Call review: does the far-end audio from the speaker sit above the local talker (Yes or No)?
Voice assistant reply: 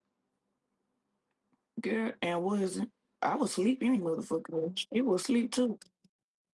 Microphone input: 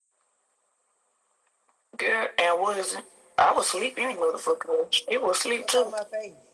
Yes